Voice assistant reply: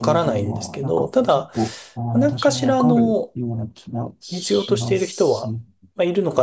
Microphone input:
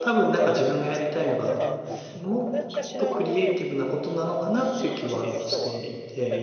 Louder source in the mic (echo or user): user